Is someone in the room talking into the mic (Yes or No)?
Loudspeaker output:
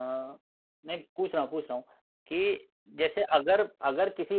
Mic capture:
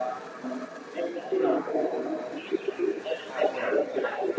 Yes